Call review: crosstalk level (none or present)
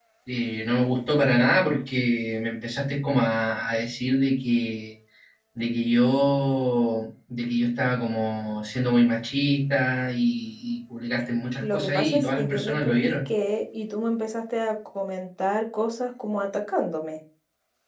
present